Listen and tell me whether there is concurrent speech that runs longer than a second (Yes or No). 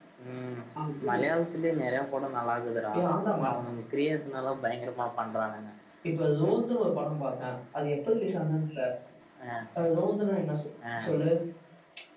No